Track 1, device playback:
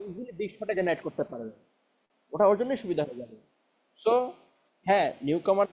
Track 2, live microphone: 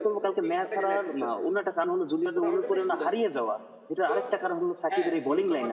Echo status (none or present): present